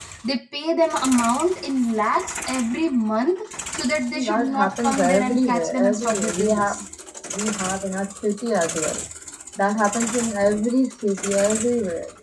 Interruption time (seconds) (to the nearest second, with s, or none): 4 s